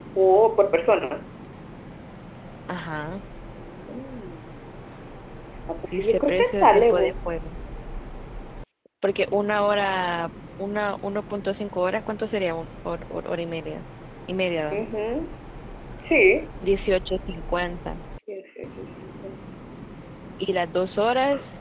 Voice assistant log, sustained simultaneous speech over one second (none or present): present